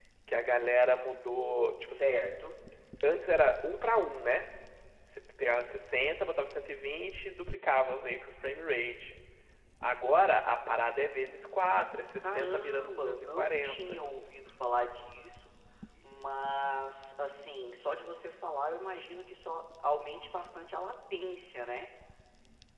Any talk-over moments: Yes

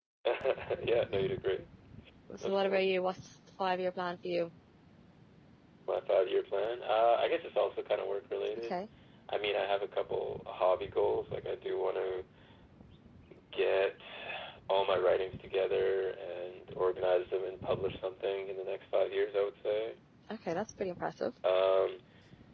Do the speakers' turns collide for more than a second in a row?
No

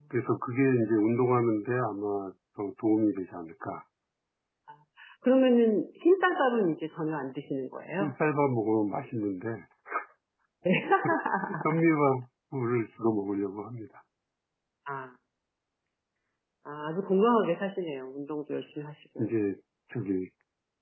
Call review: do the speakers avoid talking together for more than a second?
Yes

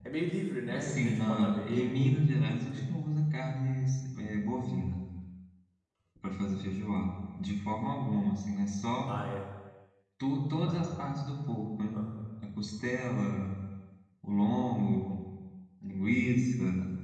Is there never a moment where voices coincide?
No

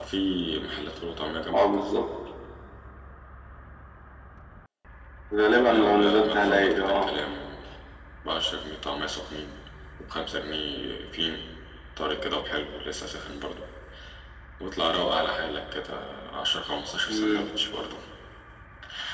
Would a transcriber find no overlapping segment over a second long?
No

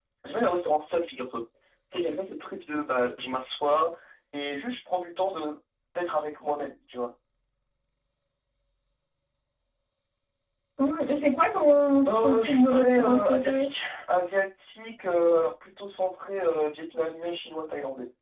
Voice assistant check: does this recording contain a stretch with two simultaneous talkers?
Yes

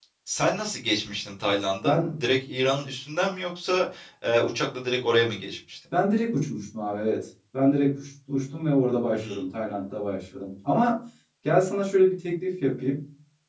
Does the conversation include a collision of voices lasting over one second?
No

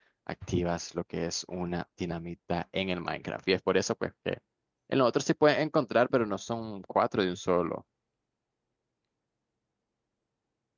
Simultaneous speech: No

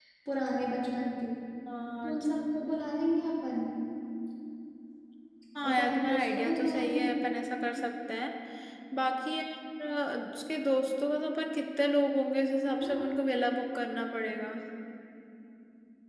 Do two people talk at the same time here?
Yes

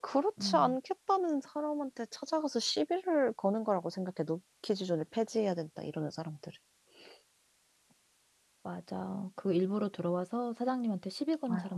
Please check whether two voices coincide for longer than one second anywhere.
No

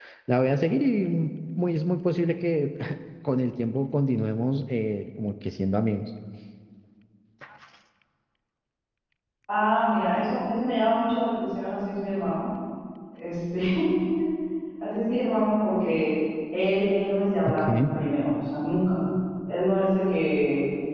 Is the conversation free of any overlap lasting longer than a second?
Yes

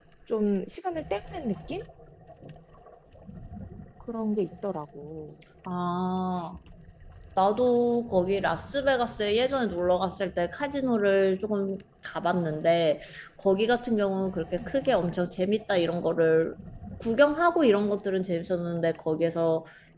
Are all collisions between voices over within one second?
Yes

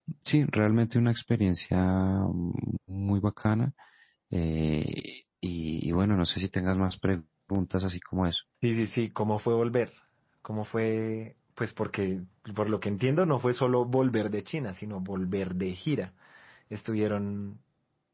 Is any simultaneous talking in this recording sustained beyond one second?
No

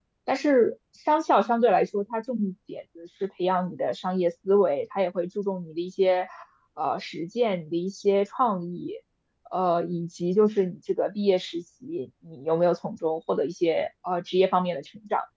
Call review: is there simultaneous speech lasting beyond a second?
No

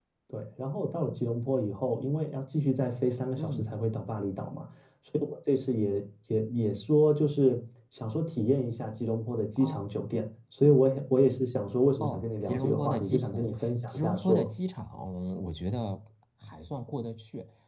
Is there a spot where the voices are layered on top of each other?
Yes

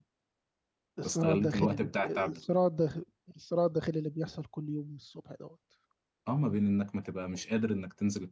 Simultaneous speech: Yes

